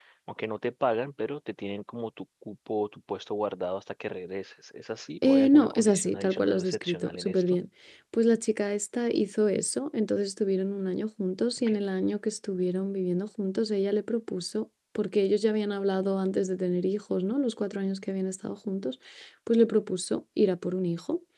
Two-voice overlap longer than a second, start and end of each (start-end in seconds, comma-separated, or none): 5.2-7.6